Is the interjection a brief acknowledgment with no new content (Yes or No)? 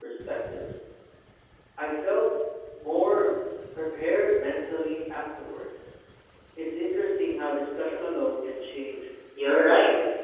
No